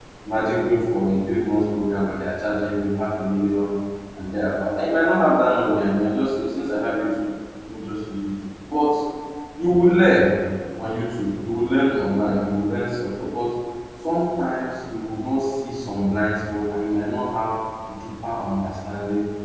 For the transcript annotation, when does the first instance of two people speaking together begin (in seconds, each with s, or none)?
none